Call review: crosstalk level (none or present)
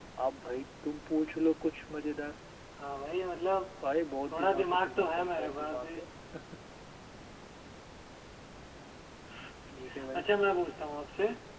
present